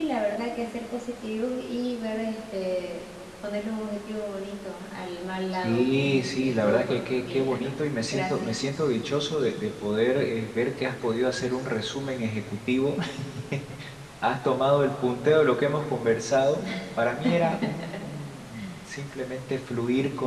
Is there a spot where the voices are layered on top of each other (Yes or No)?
Yes